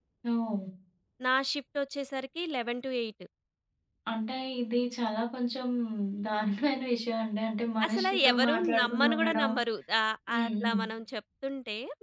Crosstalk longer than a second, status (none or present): present